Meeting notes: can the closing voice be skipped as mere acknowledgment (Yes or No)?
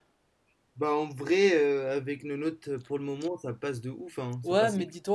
No